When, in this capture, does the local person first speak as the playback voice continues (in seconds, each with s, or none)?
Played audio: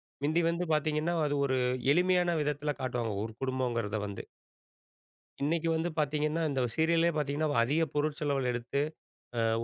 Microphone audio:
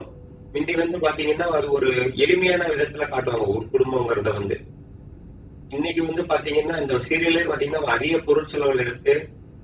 none